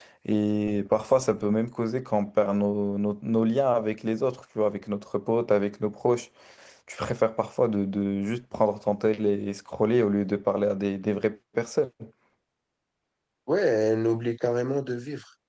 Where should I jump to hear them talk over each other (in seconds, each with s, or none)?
none